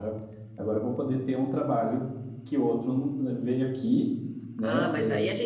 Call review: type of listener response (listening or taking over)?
taking over